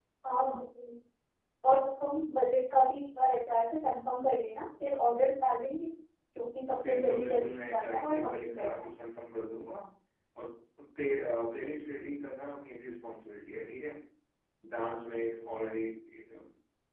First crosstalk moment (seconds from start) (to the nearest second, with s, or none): 7 s